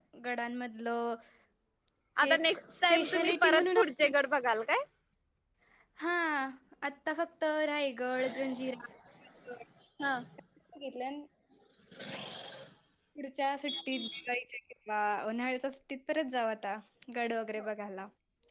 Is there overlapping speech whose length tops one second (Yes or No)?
Yes